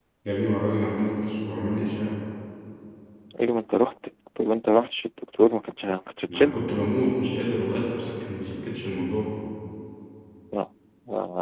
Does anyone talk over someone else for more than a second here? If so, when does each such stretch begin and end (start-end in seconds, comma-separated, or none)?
none